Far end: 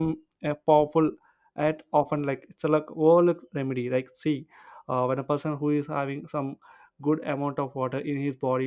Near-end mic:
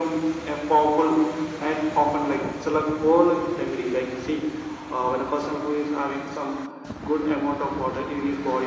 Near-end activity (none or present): none